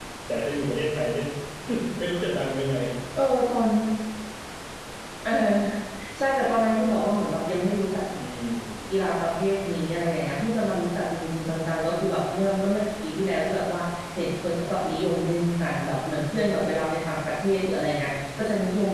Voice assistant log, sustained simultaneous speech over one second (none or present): none